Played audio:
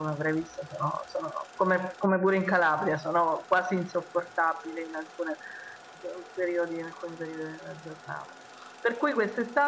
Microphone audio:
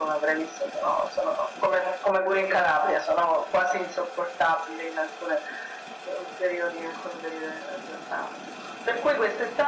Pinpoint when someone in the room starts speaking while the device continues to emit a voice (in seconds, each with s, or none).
none